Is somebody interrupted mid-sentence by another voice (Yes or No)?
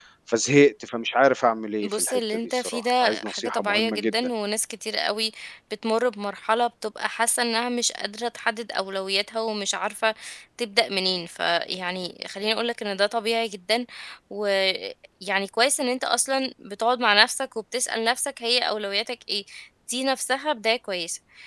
Yes